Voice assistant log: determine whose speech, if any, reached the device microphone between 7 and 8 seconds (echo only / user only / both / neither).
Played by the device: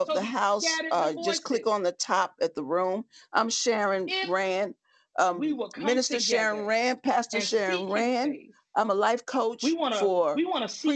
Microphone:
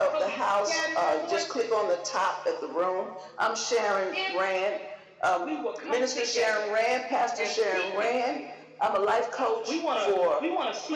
echo only